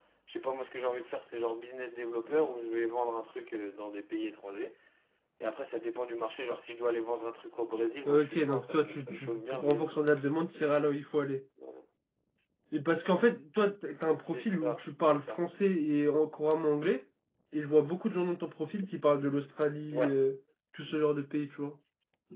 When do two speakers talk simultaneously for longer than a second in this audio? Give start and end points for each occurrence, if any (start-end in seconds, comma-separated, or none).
8.1-10.0, 14.2-15.4